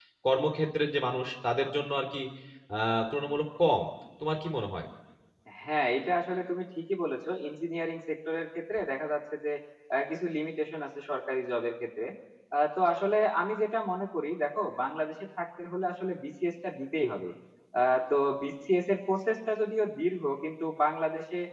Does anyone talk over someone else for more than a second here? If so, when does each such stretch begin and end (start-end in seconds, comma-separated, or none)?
none